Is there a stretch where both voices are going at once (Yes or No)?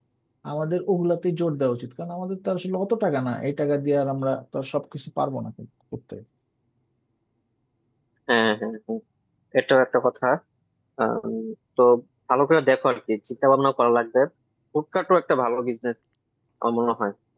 No